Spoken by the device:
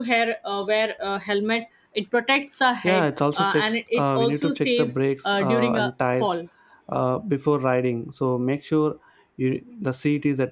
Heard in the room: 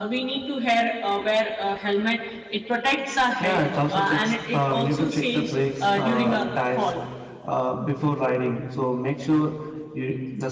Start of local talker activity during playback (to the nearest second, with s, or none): none